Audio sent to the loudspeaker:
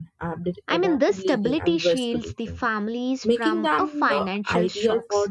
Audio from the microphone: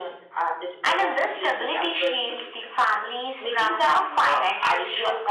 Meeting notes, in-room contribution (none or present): none